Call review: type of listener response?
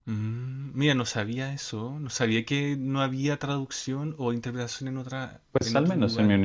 taking over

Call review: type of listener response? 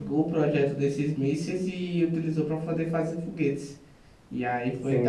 taking over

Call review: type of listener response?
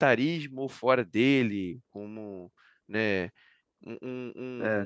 taking over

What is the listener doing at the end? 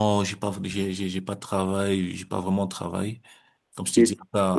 listening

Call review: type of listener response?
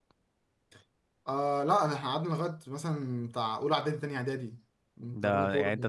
taking over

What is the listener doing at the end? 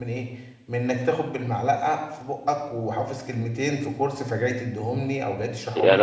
taking over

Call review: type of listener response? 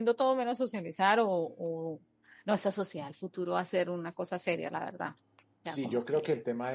taking over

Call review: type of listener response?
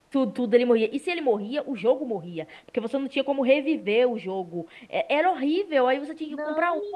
taking over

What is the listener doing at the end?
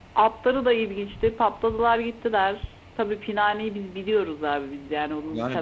taking over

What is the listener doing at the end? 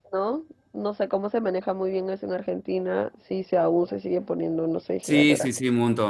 taking over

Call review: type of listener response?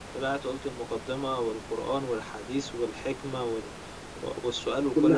listening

